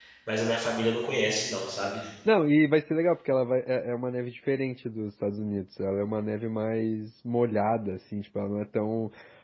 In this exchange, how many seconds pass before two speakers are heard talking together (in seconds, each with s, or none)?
none